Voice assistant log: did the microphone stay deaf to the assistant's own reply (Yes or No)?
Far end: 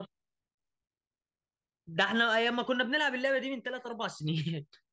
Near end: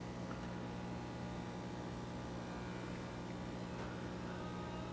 Yes